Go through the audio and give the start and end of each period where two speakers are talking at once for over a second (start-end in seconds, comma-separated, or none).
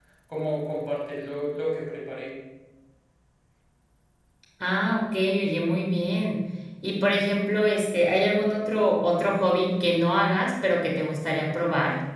none